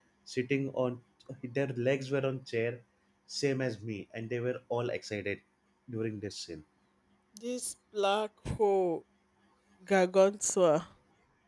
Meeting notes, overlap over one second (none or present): none